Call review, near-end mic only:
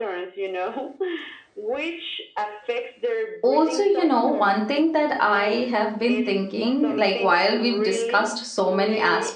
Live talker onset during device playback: 3.4 s

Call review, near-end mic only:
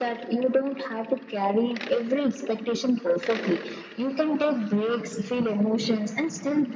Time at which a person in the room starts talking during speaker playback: none

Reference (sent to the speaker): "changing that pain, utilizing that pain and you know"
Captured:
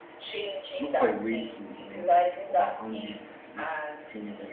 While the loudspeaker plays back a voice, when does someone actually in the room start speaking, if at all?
0.8 s

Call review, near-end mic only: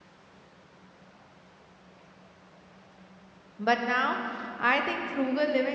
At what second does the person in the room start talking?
3.6 s

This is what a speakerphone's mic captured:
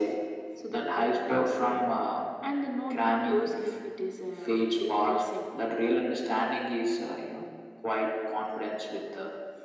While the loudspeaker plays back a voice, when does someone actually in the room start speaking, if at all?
none

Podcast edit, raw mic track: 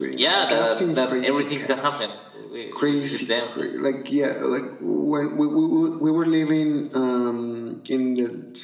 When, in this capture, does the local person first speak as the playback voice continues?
none

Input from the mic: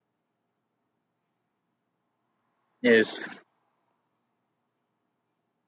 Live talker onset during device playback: 2.8 s

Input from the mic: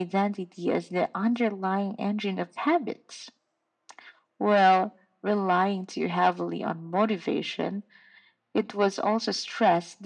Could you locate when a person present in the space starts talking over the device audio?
none

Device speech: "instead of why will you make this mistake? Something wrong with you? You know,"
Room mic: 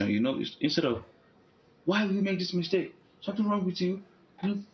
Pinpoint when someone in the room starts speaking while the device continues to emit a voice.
none

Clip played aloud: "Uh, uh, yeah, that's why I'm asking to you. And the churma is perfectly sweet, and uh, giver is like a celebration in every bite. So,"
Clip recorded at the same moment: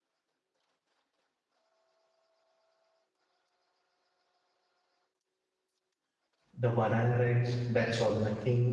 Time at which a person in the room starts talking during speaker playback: 6.5 s

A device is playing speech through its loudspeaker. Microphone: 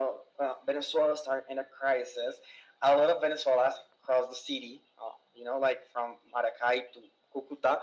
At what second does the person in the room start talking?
none

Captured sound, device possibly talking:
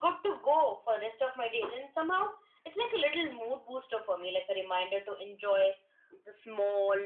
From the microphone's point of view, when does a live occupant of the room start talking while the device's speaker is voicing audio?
none

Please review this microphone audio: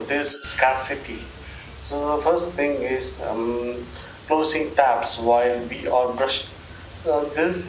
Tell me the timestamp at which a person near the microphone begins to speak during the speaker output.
none

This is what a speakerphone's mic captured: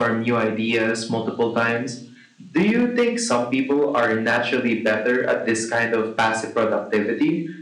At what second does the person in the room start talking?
none

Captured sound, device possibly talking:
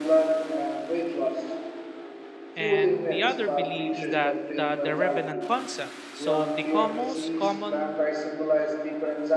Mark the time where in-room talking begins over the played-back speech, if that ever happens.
2.5 s

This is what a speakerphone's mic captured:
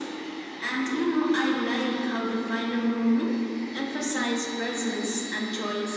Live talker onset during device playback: none

